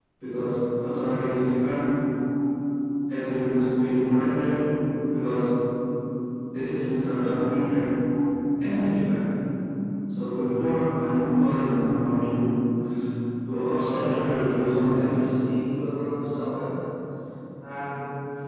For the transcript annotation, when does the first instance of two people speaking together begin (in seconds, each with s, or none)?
14.0 s